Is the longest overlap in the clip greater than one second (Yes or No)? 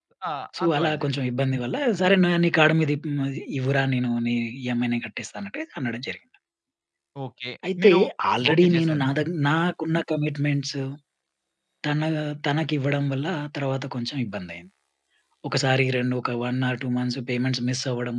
No